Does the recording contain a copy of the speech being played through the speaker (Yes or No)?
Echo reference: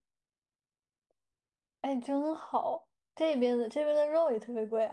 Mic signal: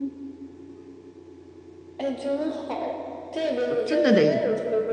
Yes